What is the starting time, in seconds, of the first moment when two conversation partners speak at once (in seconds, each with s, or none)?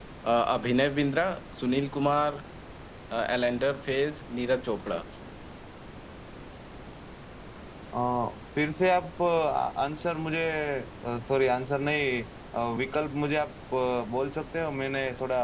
none